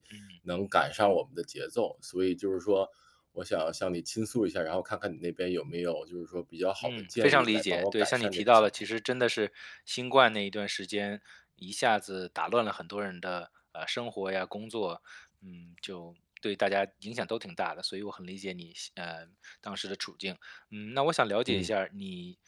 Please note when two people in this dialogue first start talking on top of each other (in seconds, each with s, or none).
6.8 s